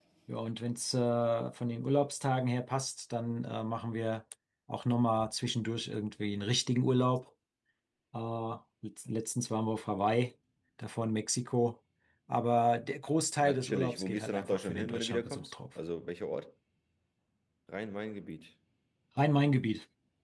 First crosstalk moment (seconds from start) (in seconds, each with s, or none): 13.4 s